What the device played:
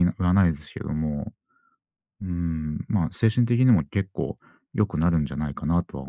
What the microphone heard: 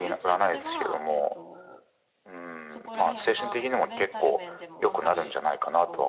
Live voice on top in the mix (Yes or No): No